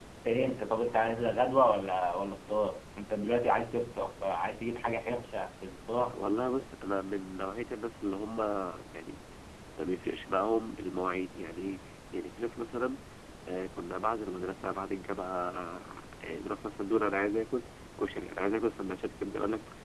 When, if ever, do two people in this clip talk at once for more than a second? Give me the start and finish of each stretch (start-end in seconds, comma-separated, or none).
none